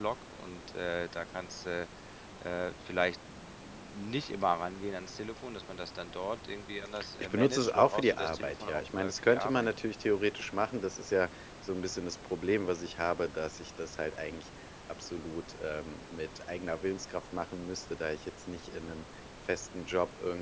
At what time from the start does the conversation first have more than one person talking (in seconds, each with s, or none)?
7.0 s